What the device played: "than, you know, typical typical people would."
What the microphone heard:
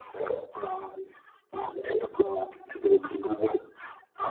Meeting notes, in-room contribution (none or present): none